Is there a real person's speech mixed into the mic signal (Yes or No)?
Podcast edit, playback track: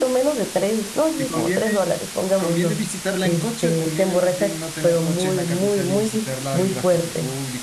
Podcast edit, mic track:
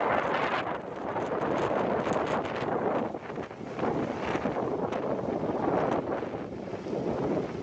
No